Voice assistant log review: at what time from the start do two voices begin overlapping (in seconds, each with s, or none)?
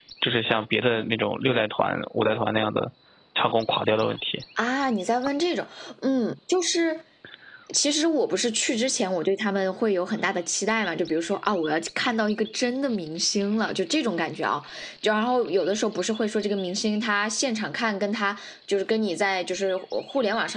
none